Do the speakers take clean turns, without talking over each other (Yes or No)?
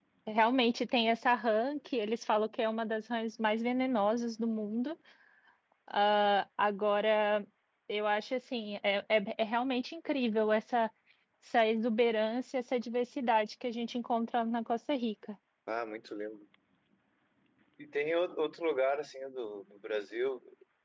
Yes